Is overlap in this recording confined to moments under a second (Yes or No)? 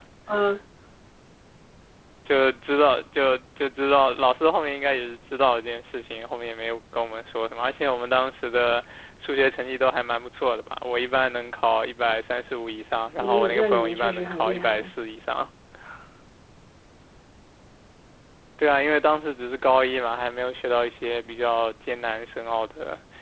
No